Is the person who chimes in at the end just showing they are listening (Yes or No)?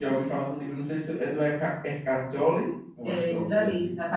No